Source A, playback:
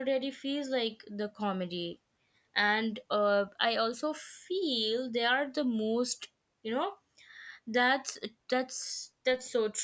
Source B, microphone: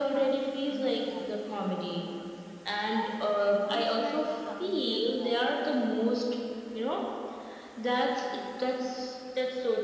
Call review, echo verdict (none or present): present